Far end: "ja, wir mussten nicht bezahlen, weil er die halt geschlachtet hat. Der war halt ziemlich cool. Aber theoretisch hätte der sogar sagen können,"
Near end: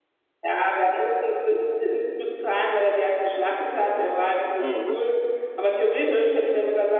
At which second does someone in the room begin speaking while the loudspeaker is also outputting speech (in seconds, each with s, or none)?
4.6 s